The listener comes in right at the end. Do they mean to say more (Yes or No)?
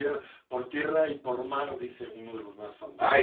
Yes